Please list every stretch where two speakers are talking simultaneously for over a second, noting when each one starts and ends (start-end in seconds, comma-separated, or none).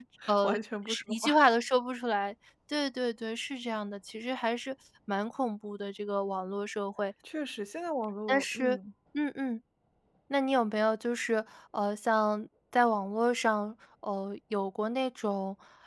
none